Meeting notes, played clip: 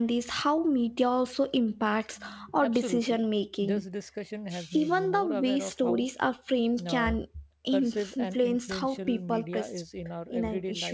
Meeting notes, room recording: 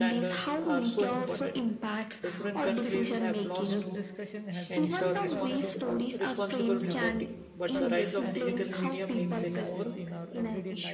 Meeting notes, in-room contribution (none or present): present